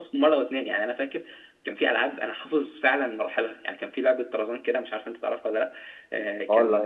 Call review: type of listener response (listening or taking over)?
taking over